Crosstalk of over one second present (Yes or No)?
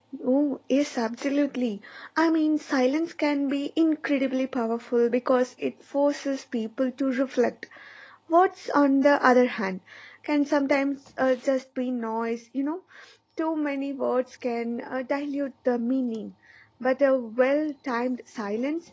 No